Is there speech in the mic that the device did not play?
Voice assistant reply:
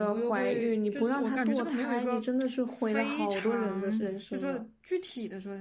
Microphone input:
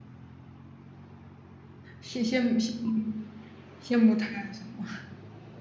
Yes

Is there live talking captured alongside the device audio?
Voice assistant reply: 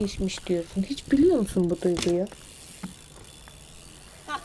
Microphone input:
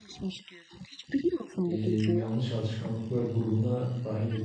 Yes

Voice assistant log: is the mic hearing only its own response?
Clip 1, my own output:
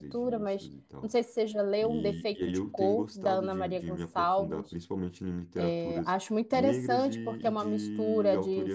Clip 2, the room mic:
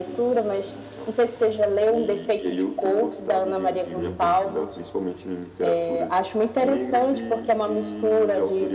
No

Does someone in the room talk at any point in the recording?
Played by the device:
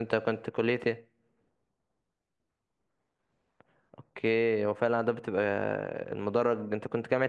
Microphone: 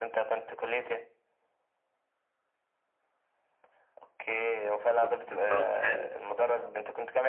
Yes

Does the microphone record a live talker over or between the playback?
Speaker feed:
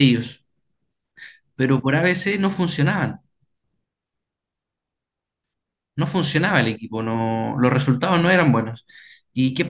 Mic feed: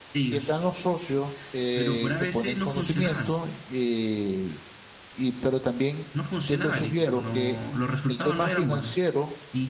Yes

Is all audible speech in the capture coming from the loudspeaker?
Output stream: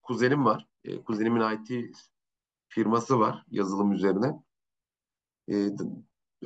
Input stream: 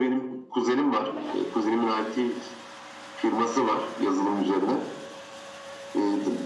Yes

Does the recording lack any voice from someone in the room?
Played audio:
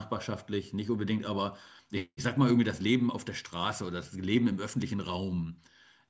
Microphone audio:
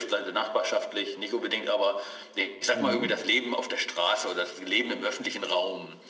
No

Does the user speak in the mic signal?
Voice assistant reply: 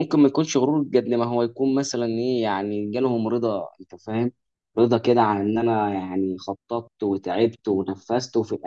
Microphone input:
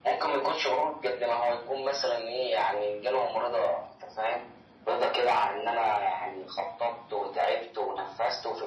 No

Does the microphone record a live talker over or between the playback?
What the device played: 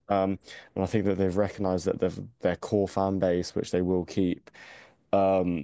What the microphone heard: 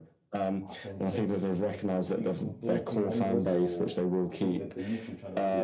Yes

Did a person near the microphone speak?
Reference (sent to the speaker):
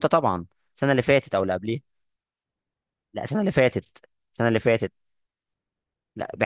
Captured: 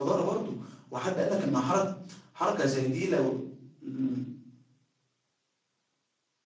Yes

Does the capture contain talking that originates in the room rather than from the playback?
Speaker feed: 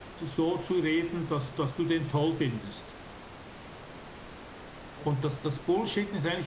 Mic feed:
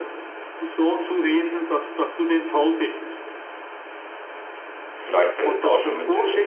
Yes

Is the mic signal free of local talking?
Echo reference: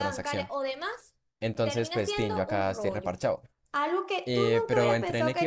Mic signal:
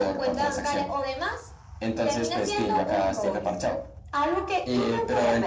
Yes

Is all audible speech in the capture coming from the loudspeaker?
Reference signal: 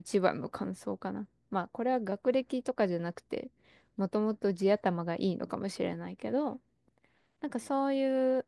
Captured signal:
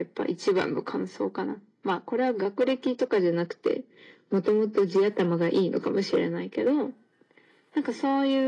Yes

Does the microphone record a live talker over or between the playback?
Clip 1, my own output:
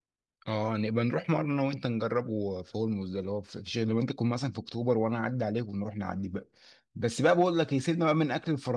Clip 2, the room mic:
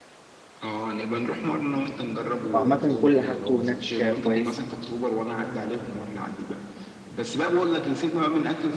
Yes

